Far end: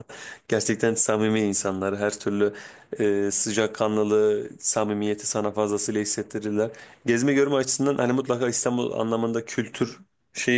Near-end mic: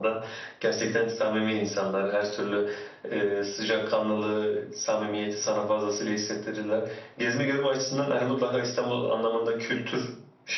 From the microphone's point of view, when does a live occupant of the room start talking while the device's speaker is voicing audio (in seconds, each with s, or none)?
none